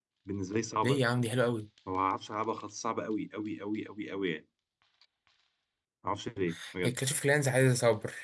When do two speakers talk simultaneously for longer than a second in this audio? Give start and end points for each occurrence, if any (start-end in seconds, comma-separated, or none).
none